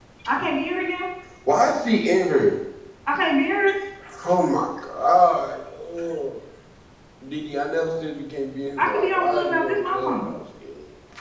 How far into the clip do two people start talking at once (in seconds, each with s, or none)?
8.8 s